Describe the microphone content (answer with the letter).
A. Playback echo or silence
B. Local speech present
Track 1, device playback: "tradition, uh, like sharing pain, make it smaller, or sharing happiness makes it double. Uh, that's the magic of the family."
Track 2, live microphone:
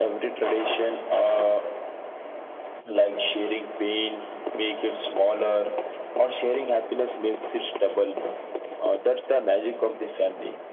A